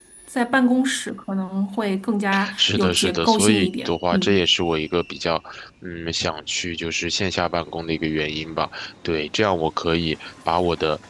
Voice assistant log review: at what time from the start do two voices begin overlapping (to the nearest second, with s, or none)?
2 s